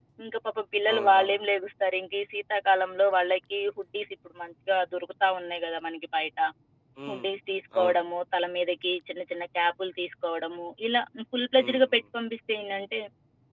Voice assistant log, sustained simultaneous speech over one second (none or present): none